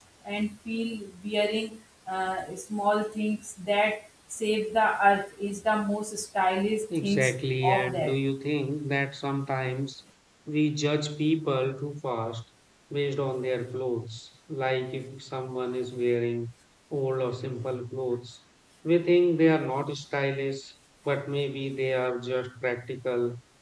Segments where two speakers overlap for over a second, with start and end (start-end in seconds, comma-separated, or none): 6.9-8.2